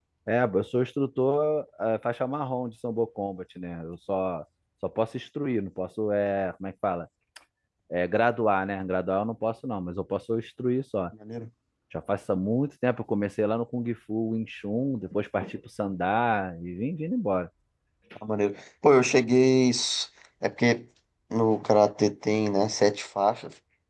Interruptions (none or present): none